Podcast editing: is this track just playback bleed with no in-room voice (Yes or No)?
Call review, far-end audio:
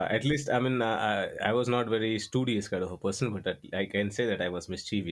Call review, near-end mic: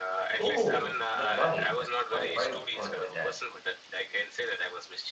No